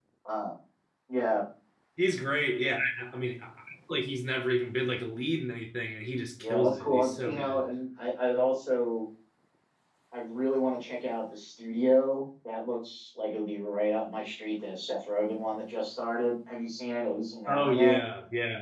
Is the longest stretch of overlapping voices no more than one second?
No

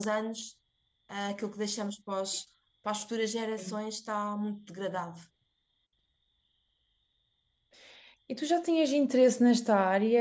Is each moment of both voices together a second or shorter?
Yes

